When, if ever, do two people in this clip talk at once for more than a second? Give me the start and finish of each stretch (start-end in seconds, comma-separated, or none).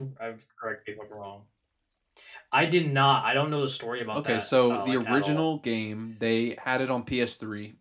4.1-5.5